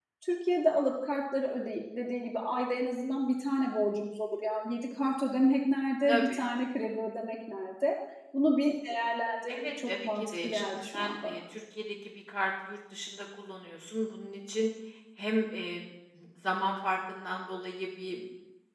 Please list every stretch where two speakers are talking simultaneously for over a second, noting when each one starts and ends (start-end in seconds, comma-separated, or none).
9.5-11.4